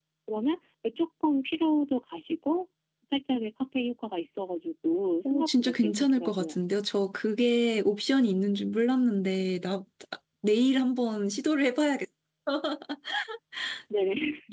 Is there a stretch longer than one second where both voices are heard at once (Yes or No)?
Yes